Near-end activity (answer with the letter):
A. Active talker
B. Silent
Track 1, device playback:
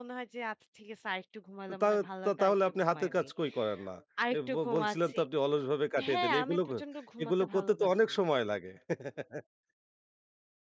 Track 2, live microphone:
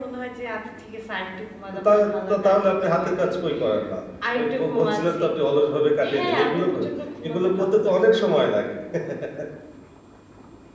B